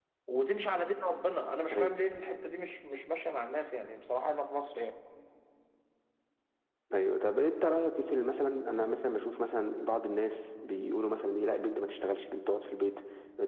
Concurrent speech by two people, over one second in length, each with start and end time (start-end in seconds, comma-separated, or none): none